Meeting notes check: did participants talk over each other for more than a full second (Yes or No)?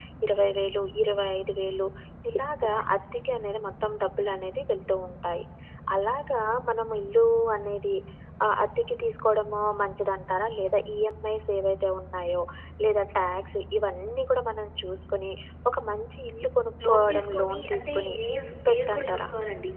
Yes